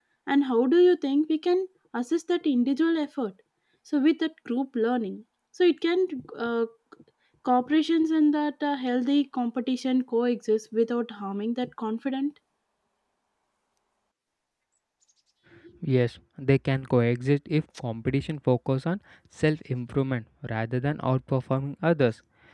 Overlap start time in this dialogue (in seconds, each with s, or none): none